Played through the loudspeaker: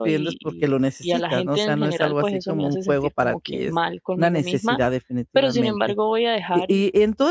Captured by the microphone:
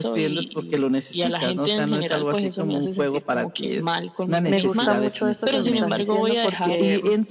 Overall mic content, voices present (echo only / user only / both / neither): both